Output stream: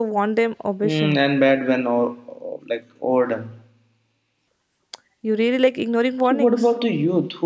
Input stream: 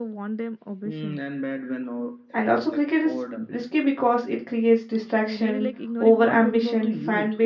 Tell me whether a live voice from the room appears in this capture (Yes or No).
Yes